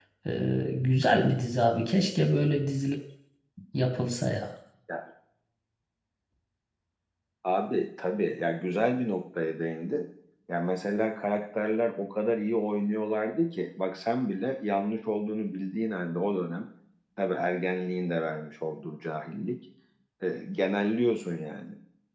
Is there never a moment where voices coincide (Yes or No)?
Yes